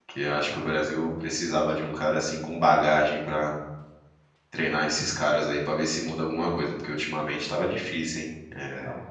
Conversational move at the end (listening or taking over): listening